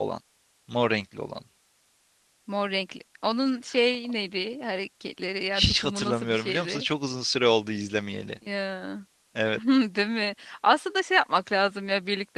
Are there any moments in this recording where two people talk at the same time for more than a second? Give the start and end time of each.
5.5-6.8

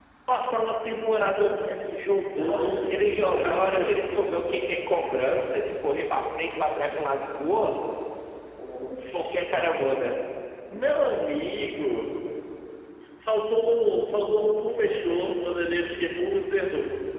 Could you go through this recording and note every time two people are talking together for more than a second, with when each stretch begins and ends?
2.4-4.1

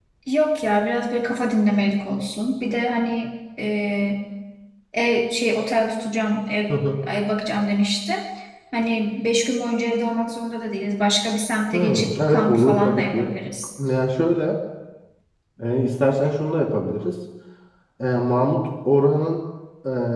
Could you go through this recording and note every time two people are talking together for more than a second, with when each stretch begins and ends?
11.7-13.3

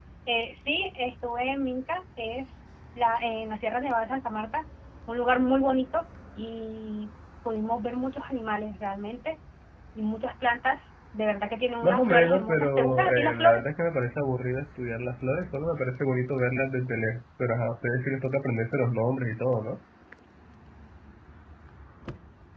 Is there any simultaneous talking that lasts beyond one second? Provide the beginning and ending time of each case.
11.8-13.6

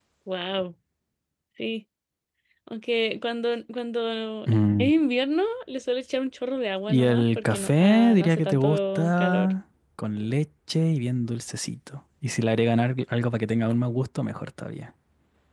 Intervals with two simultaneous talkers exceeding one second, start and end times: 6.9-9.5

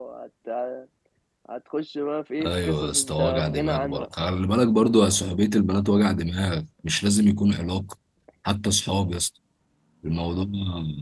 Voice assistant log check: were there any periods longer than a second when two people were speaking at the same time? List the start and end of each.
2.4-4.1

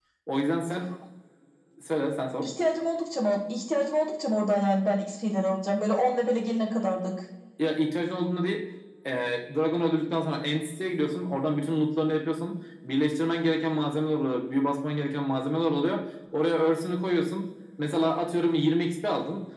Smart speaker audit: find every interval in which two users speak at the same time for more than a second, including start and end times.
none

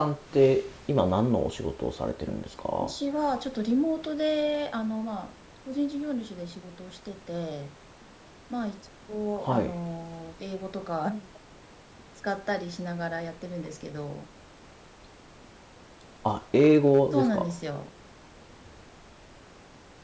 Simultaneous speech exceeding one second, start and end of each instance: none

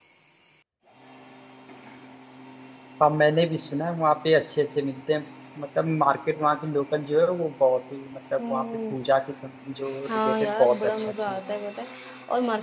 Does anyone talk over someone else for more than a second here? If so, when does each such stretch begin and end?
10.1-11.4

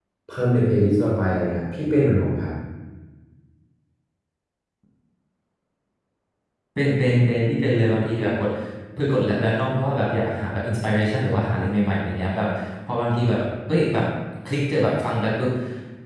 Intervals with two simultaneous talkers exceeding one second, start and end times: none

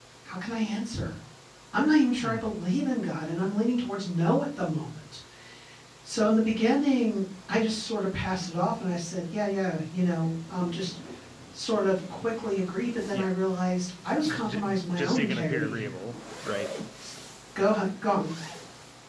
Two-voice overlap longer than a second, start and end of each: 14.3-15.9

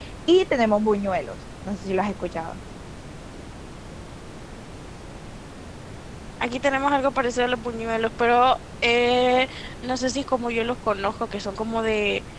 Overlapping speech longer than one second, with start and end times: none

